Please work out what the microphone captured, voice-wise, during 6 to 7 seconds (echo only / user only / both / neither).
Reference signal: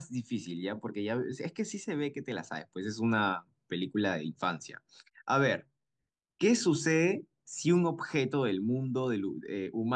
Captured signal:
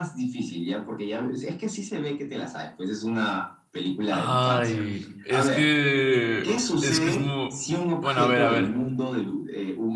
both